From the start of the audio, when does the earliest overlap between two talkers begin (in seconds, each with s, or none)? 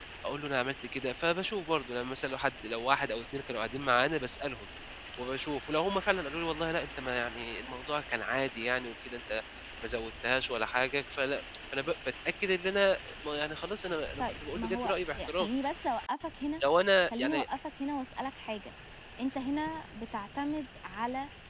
14.2 s